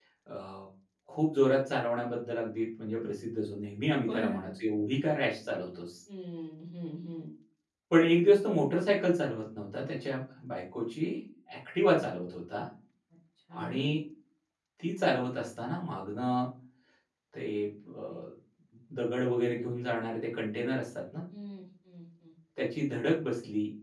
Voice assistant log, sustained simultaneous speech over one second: none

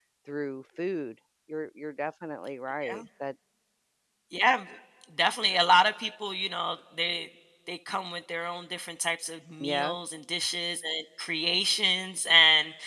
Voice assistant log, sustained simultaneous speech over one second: none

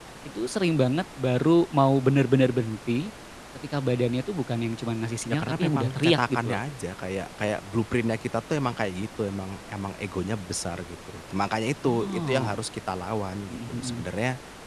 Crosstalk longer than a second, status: present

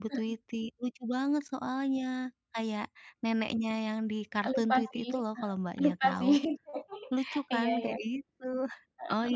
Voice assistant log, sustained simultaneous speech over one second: present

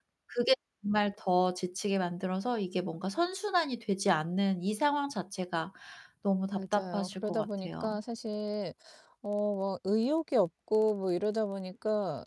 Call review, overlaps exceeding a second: present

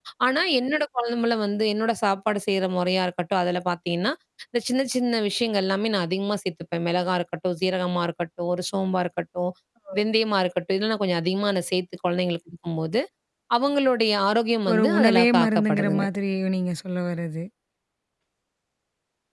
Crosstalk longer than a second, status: present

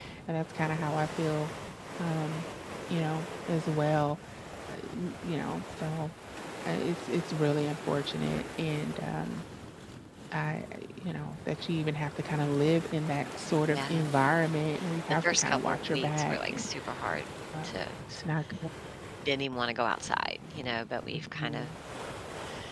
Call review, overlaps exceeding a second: present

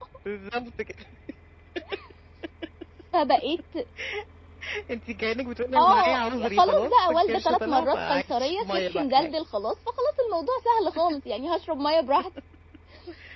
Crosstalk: present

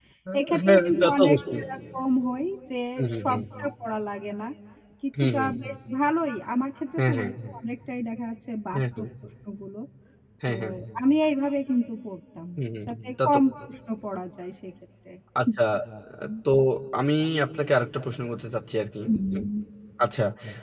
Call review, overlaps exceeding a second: present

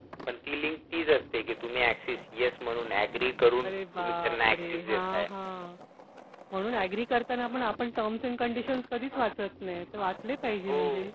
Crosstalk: present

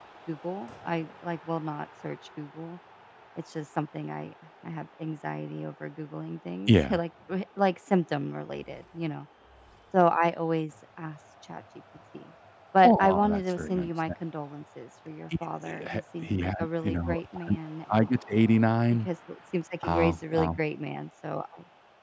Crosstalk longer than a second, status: present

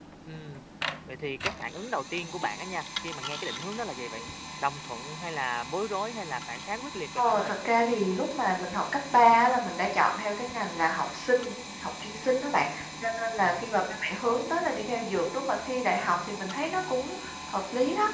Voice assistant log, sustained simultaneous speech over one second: none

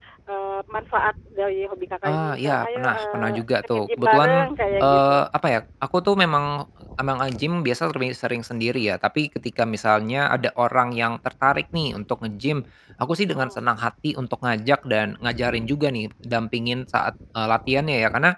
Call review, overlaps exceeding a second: present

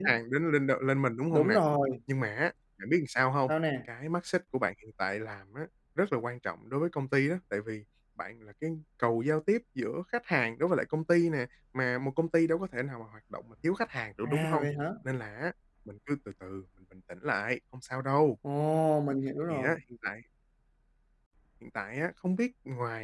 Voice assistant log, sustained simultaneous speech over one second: none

